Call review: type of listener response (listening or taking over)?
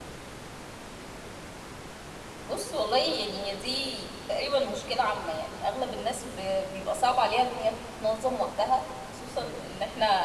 listening